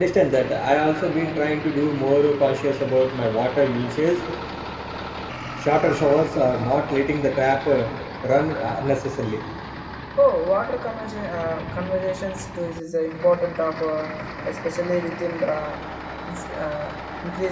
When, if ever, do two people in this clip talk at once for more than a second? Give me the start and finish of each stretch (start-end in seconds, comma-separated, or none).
none